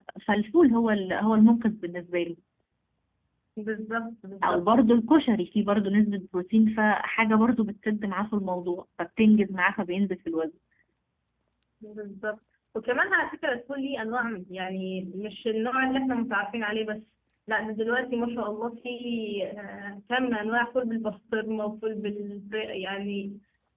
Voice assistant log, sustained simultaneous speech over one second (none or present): none